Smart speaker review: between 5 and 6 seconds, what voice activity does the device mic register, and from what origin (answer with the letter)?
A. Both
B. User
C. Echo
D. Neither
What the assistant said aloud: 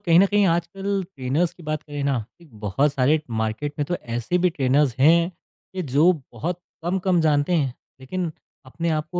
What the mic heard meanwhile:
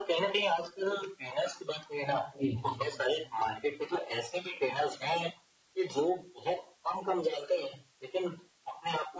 C